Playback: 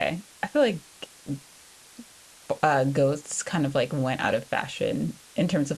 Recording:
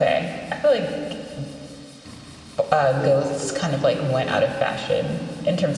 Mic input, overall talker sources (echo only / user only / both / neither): both